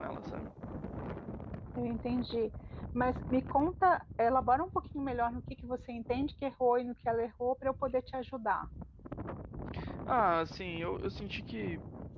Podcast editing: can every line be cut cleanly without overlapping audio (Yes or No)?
Yes